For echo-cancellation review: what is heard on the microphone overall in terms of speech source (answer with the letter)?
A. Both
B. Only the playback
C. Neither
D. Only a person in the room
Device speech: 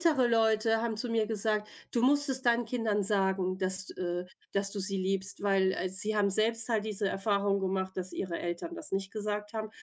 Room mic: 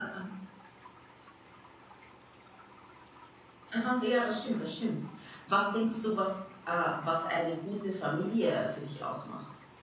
D